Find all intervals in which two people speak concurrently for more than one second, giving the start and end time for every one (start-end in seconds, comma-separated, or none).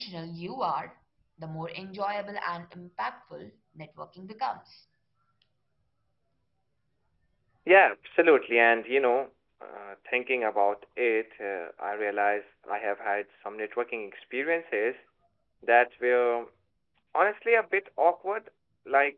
none